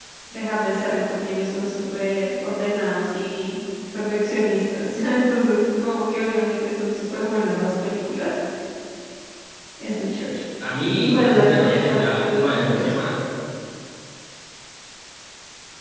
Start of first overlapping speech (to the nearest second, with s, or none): 11 s